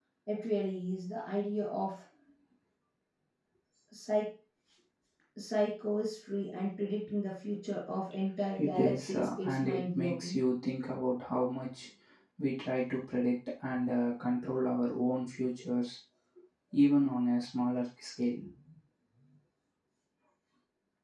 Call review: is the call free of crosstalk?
No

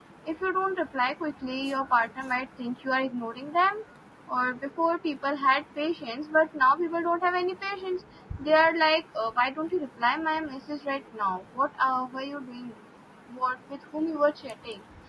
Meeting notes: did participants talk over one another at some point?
No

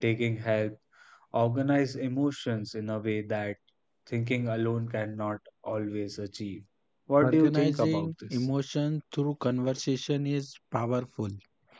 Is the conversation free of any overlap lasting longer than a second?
No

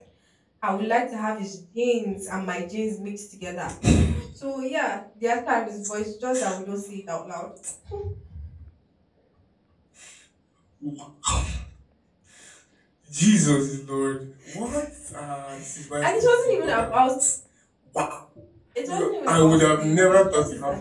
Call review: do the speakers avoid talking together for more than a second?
No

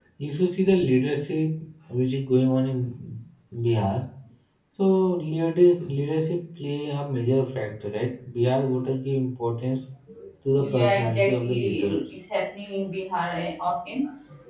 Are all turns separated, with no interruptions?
No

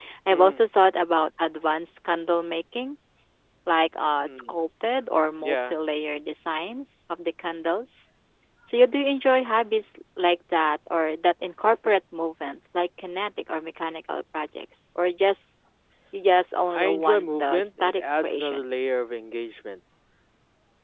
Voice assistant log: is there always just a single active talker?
No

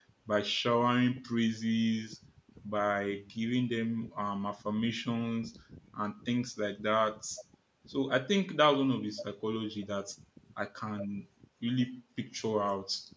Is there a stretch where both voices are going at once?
No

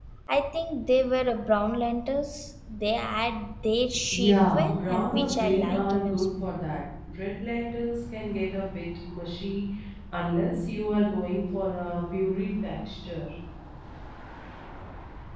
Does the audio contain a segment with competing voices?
Yes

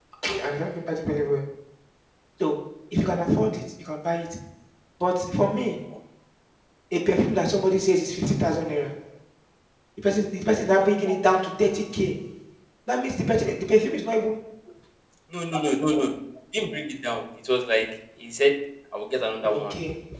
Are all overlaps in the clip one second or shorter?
Yes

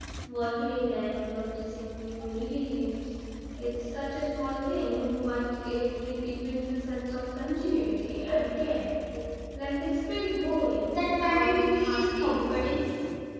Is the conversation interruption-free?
No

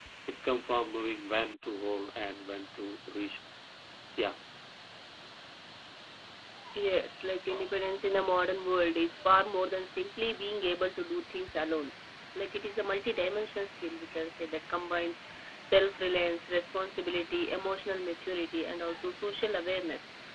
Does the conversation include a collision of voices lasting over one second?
No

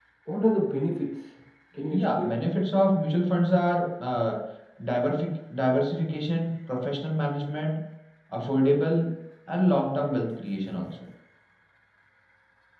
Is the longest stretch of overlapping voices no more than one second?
Yes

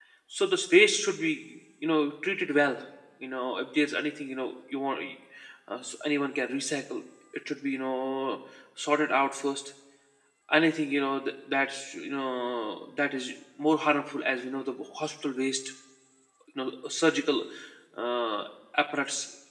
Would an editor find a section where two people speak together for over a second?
No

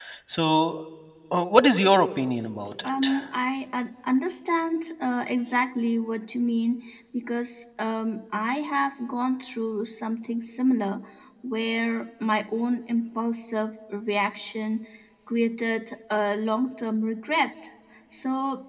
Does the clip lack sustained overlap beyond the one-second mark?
Yes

